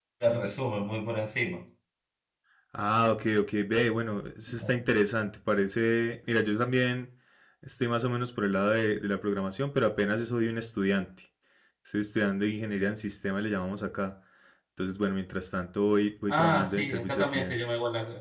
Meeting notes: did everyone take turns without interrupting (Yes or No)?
No